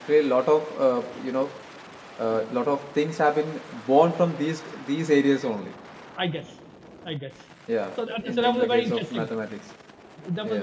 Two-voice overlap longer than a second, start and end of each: 8.0-9.3

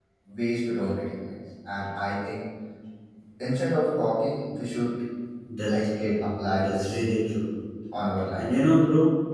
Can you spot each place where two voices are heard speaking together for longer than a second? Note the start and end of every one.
5.7-7.0

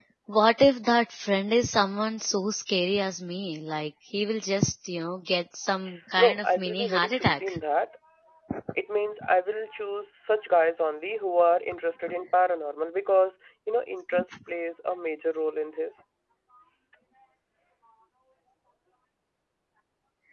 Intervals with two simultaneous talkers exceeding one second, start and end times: 6.2-7.6

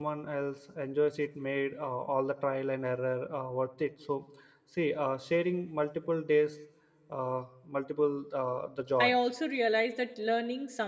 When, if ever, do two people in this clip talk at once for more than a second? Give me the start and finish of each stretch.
none

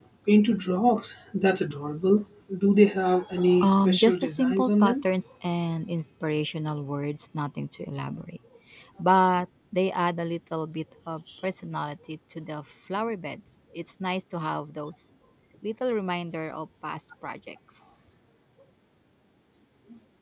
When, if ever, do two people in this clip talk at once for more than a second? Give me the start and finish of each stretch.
3.6-4.9

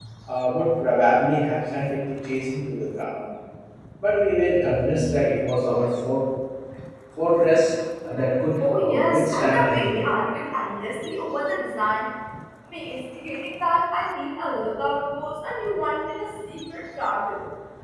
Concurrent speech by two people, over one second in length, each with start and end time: 8.8-10.0

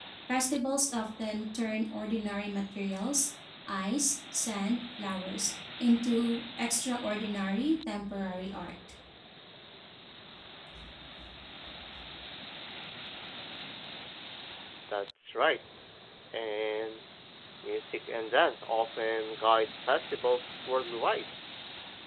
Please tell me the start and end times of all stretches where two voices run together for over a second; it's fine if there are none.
none

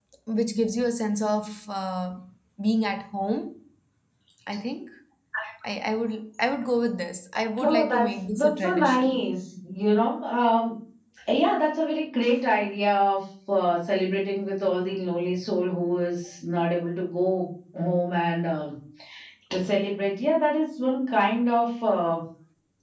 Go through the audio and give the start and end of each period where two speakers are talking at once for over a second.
7.6-9.2

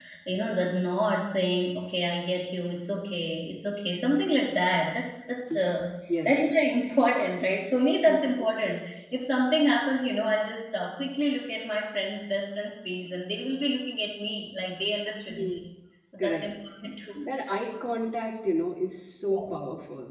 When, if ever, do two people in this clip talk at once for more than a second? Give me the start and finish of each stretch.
none

